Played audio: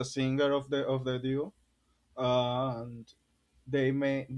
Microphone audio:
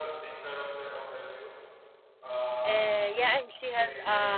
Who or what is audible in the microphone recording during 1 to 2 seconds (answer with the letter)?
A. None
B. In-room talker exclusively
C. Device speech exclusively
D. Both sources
C